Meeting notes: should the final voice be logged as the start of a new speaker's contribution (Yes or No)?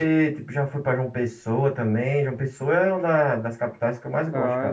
Yes